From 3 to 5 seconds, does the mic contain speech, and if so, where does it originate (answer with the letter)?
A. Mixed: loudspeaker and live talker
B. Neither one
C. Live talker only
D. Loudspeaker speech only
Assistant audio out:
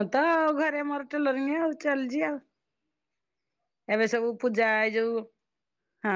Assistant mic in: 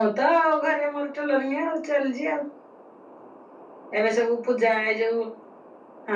D